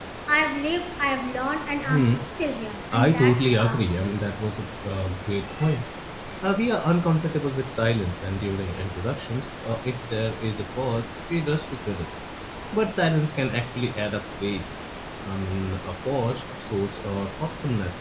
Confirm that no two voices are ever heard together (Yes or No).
No